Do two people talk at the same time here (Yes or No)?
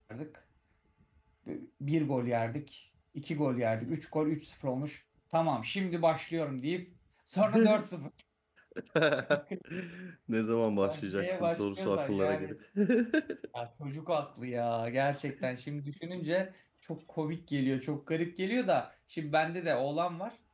Yes